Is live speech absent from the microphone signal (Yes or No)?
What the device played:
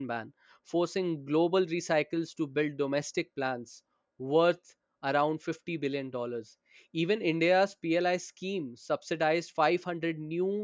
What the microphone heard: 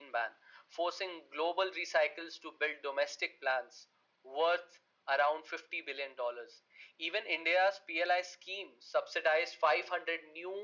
Yes